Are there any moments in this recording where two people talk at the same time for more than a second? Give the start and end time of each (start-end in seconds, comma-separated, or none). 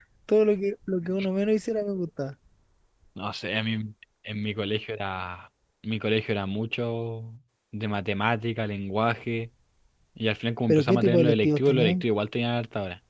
10.7-12.0